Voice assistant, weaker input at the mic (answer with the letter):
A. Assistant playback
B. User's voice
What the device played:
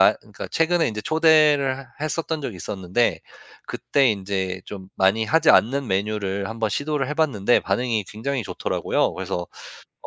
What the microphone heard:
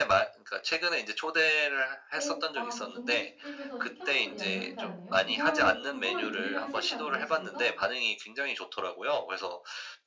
B